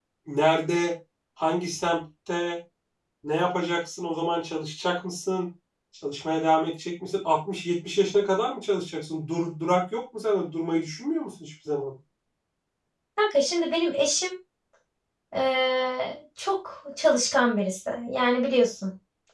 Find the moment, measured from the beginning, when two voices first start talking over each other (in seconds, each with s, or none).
none